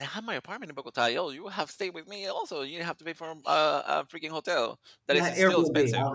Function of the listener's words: taking over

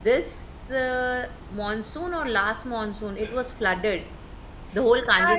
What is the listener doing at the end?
taking over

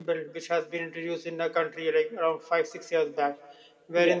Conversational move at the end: listening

